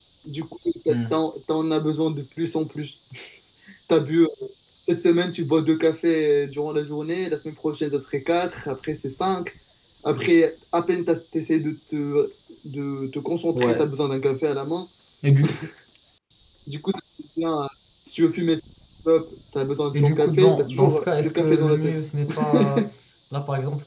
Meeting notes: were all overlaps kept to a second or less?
No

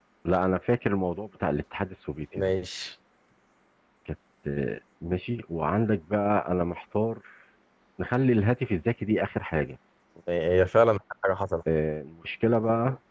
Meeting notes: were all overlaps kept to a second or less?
Yes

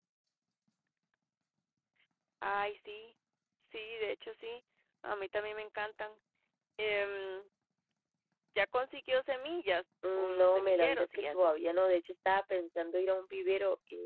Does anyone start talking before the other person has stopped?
Yes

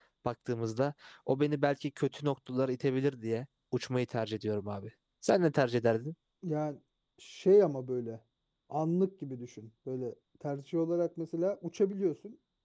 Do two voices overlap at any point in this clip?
No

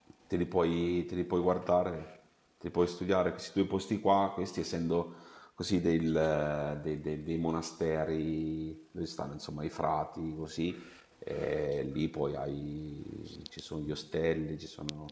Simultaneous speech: No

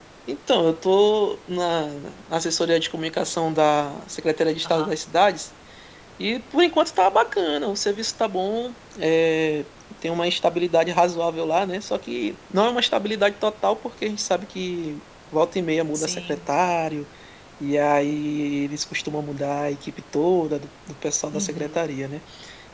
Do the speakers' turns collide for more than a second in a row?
No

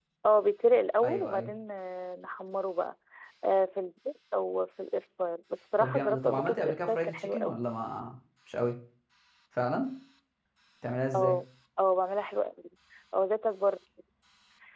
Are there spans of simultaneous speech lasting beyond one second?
Yes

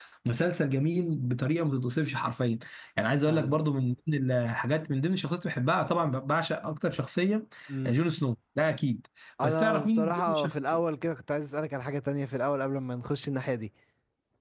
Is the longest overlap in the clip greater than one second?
Yes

